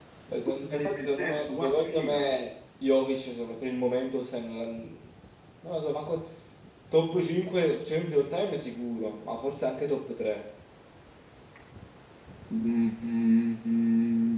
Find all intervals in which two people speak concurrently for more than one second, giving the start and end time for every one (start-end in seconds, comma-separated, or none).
0.7-2.2